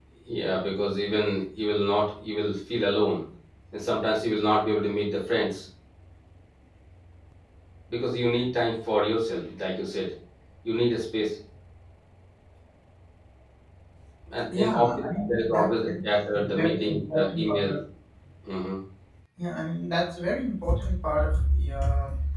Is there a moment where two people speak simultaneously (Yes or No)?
Yes